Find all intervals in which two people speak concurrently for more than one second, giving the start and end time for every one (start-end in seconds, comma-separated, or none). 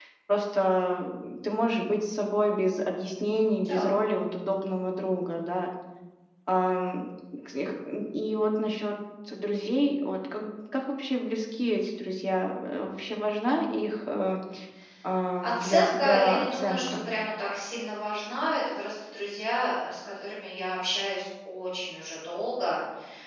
15.4-16.8